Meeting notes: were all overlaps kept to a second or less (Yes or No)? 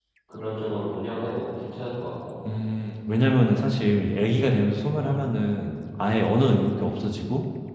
Yes